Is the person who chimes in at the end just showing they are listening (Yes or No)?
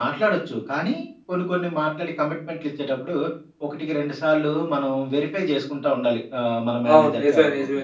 No